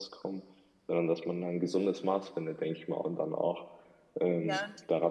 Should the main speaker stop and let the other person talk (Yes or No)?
No